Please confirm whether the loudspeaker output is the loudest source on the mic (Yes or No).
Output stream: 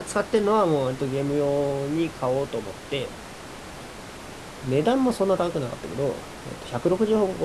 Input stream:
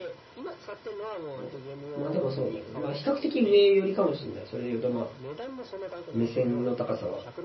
No